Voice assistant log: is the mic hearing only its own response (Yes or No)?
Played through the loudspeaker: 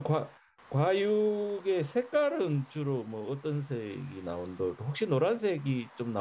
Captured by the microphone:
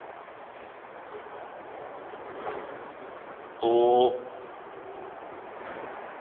No